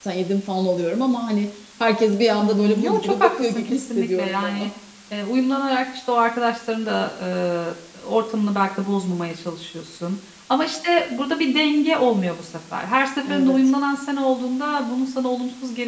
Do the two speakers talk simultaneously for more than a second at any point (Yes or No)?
Yes